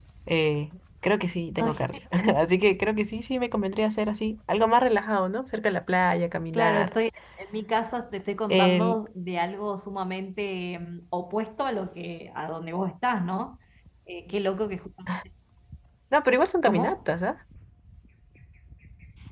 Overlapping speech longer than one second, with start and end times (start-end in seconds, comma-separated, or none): none